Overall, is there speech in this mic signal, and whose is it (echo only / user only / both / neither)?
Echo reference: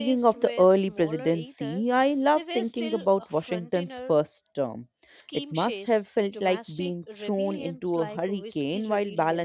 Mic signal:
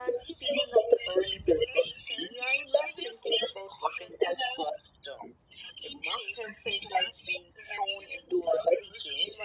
echo only